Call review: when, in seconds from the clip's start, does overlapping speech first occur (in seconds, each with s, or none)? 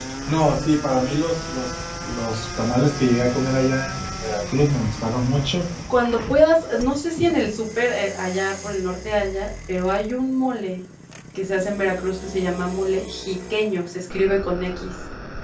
none